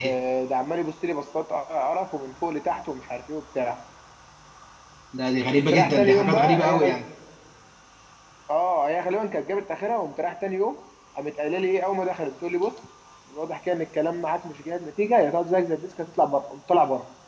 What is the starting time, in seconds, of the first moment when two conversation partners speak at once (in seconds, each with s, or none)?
5.5 s